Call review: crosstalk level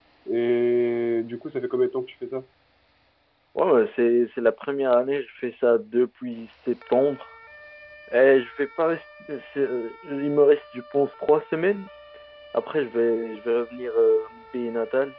none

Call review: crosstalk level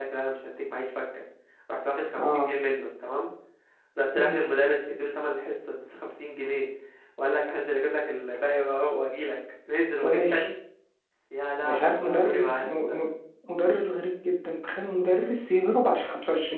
present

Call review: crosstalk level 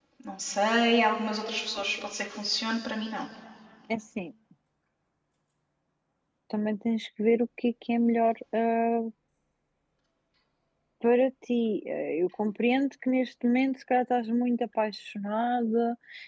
none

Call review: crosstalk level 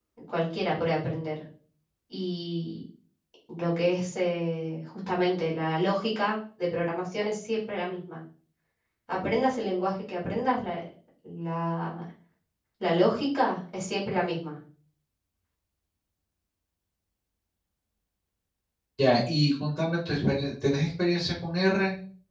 none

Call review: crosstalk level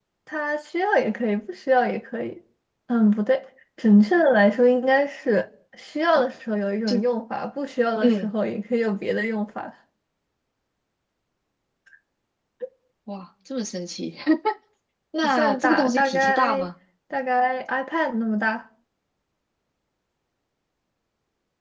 present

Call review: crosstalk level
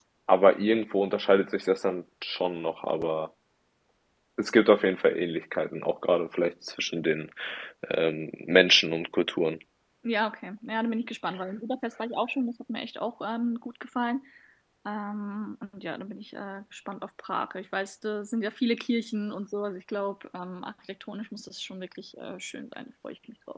none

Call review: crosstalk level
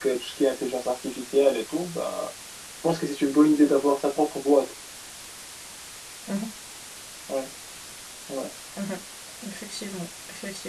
none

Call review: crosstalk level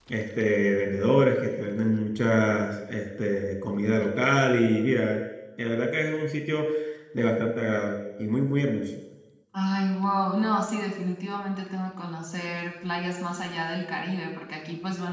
none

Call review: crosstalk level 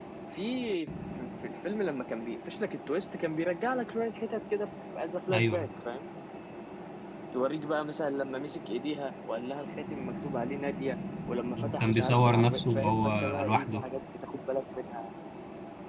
present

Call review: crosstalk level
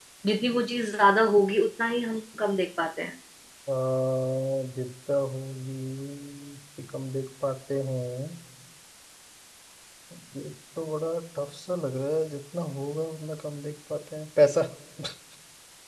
none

